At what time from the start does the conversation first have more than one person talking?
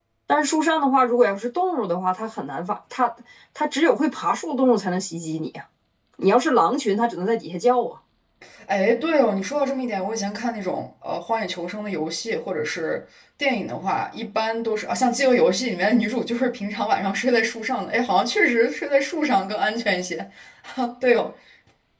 none

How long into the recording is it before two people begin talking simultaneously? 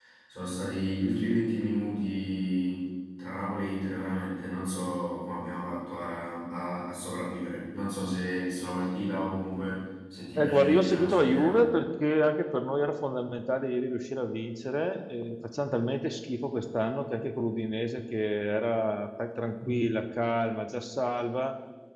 10.3 s

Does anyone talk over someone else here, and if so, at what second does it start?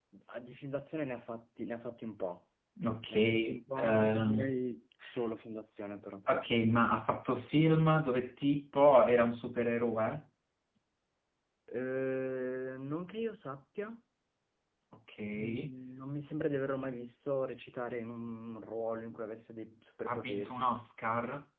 3.1 s

